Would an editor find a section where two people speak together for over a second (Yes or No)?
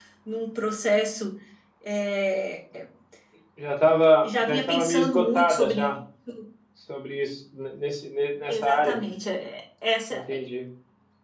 Yes